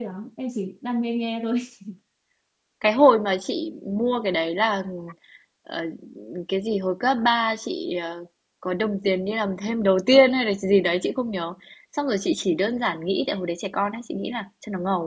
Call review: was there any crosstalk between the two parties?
No

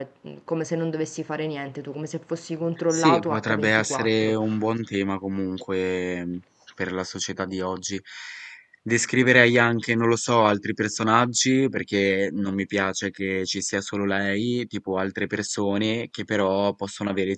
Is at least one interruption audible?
Yes, from 2.9 s

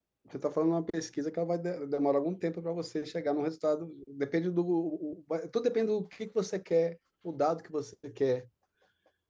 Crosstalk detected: No

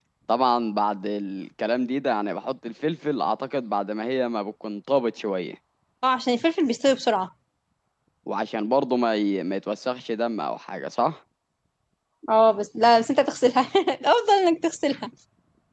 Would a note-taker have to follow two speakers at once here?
No

